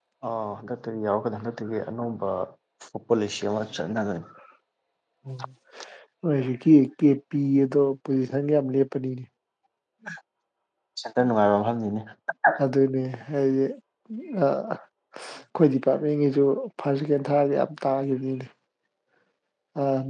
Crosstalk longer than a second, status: none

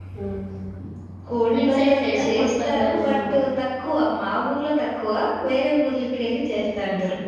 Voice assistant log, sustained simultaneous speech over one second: present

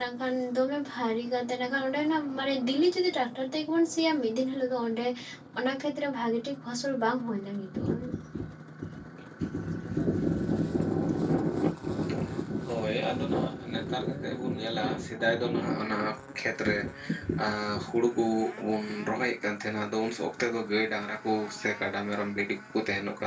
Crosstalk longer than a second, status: none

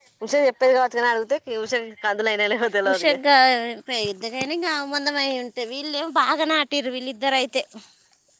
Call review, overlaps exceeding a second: none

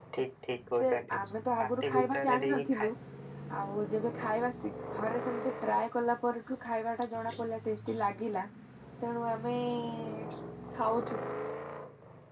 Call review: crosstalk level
present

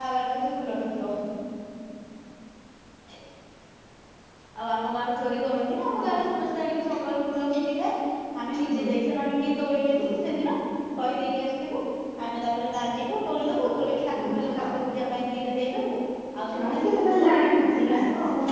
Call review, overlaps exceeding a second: present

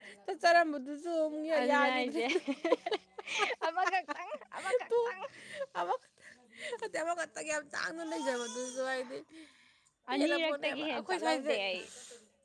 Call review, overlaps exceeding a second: present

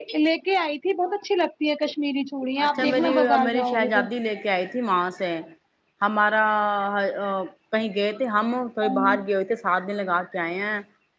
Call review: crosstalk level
present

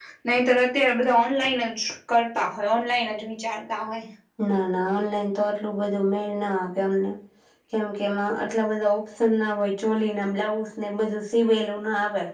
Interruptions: none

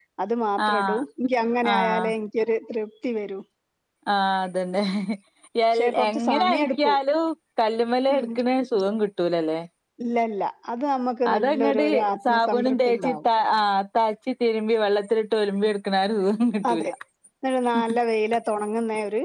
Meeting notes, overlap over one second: present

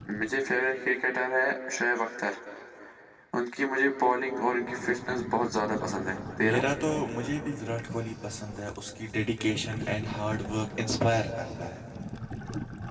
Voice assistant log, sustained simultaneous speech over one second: none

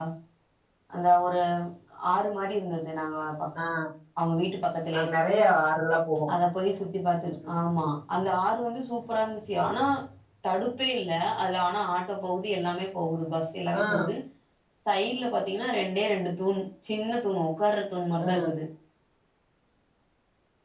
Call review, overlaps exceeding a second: none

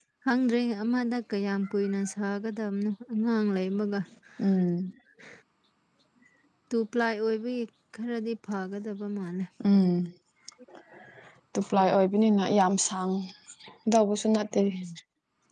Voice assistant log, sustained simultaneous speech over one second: none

